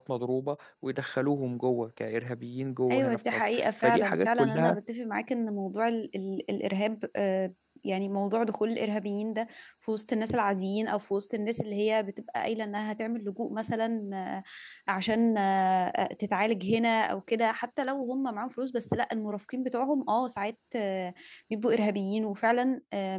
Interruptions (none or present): present